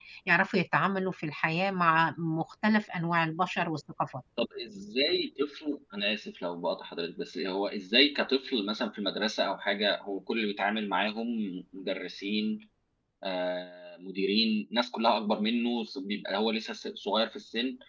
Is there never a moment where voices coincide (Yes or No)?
Yes